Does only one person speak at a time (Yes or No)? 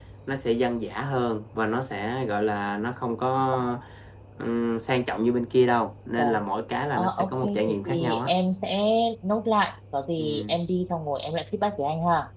No